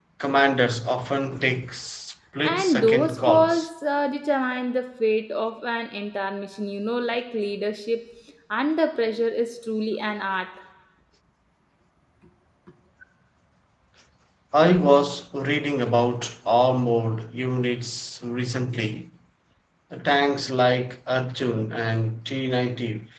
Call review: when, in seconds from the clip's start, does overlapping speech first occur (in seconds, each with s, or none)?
2.4 s